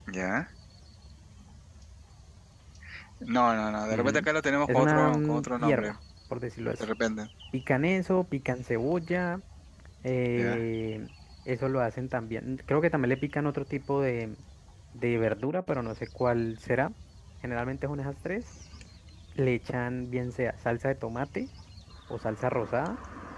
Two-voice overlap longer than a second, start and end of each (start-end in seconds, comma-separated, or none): 4.7-6.0